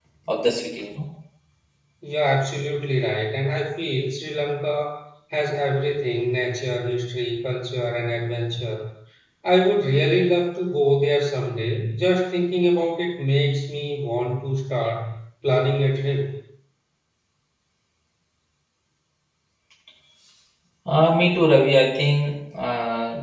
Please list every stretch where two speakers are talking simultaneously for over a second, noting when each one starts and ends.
none

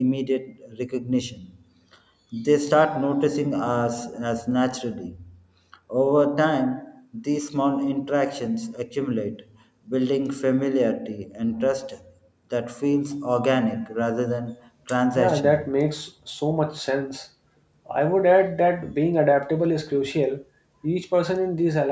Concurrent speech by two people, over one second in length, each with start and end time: none

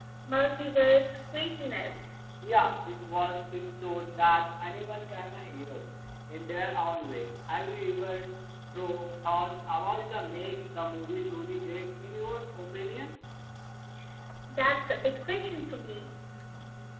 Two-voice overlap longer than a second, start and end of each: none

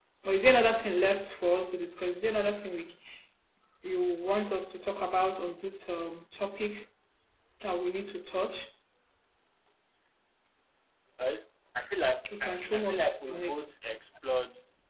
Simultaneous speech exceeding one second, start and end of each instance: 12.3-13.5

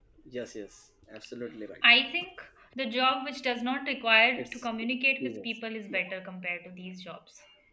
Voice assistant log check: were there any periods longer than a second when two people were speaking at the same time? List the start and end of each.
none

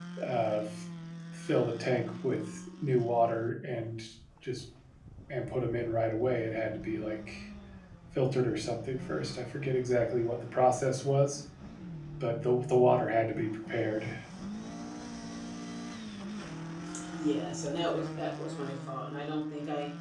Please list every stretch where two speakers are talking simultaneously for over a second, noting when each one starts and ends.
none

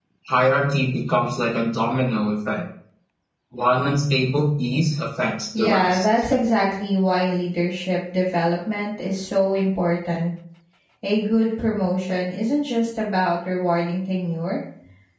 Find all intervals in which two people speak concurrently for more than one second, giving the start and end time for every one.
none

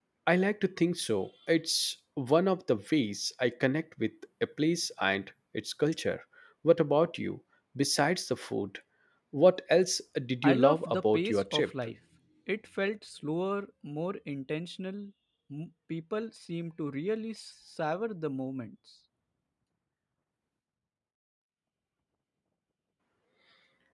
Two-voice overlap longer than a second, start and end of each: 10.4-11.7

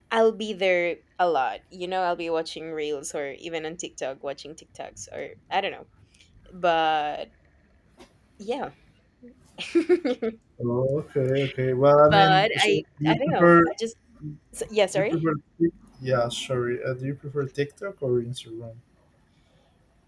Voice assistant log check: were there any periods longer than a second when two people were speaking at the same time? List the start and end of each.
12.1-13.7

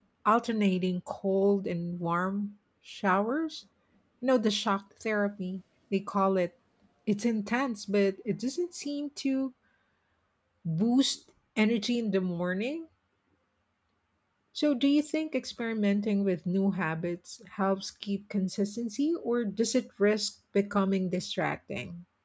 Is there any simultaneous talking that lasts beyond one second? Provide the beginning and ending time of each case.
none

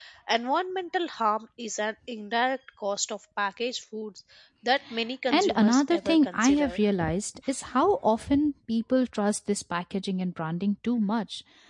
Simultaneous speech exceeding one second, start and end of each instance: 5.3-6.8

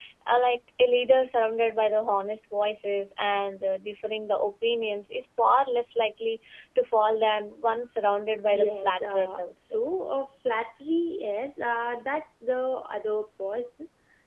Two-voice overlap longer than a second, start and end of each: 8.5-9.8

